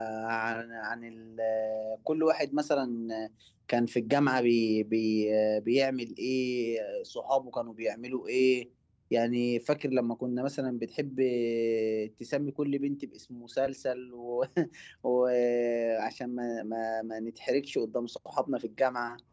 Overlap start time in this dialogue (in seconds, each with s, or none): none